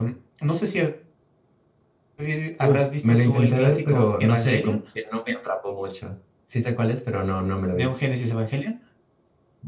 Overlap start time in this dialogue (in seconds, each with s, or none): 2.6 s